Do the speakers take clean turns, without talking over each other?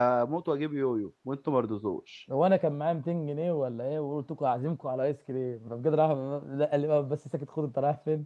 Yes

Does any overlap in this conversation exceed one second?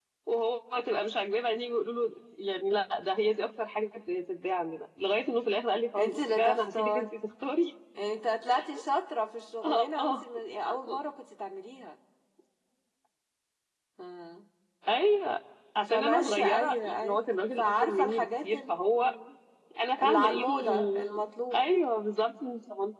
Yes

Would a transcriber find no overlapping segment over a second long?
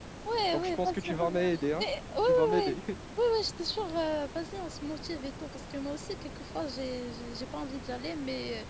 No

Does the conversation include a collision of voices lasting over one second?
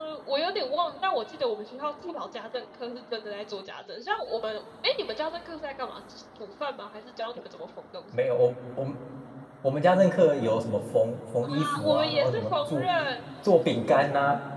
Yes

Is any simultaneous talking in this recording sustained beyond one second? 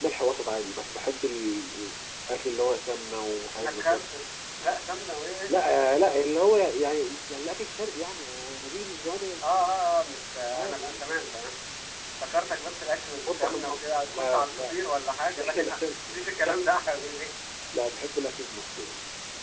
Yes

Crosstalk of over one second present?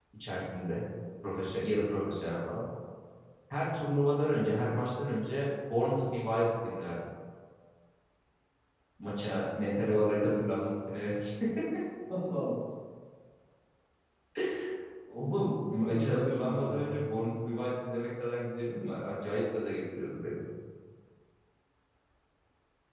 Yes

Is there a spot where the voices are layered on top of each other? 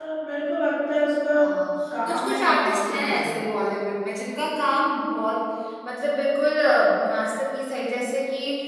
Yes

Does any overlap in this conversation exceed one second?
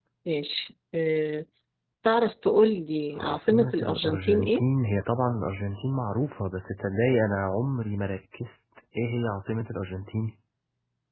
Yes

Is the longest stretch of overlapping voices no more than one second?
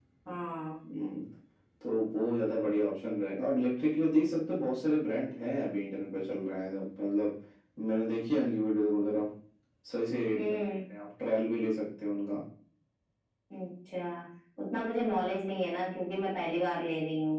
Yes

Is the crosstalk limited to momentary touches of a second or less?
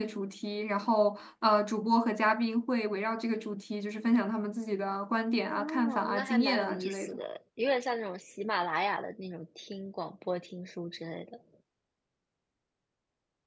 No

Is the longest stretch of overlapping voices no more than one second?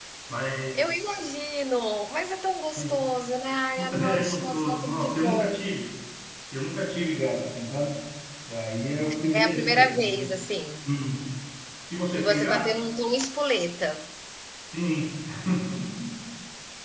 No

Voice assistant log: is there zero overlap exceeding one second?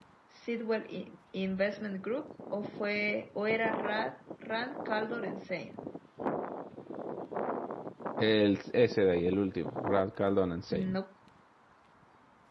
Yes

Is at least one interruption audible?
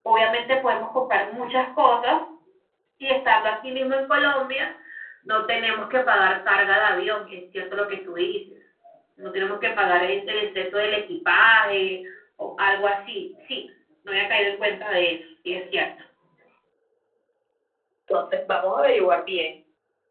No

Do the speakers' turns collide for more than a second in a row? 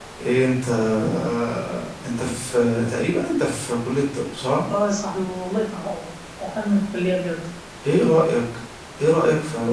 No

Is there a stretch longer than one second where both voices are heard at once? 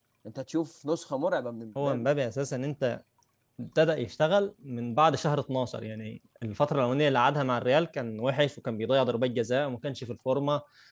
No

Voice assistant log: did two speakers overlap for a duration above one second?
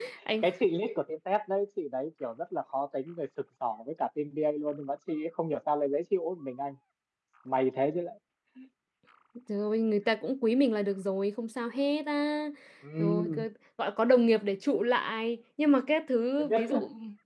No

